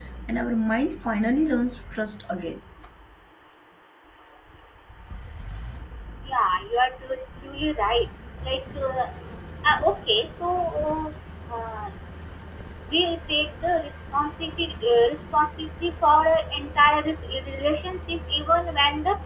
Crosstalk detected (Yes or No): No